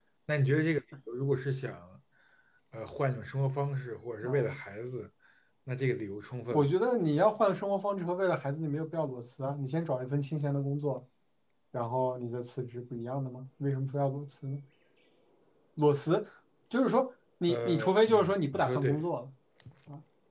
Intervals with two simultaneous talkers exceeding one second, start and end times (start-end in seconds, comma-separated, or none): 17.5-19.0